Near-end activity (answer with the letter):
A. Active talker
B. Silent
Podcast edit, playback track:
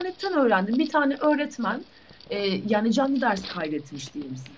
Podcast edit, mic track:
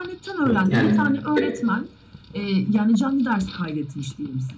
A